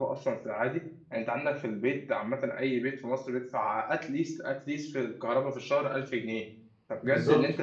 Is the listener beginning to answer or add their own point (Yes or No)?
No